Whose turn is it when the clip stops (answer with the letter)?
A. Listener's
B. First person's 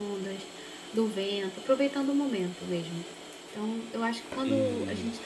B